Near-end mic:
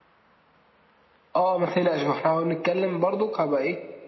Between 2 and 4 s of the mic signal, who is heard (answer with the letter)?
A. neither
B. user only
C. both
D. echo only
D